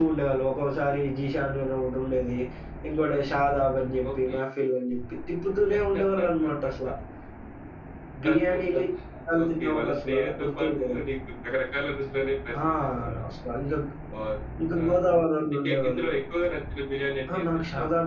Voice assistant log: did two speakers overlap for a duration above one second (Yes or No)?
Yes